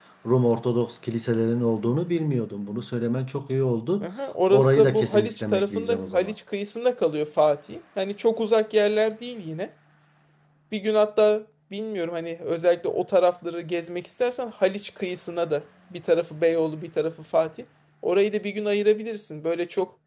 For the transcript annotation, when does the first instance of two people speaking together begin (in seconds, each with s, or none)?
4.5 s